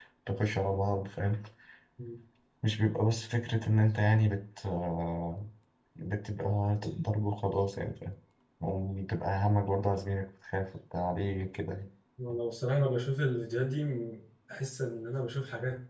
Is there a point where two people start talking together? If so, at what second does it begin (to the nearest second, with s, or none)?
none